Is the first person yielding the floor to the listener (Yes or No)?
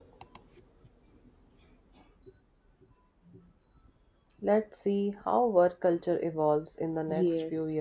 Yes